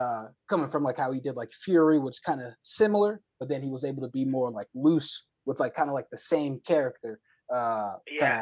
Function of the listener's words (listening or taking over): listening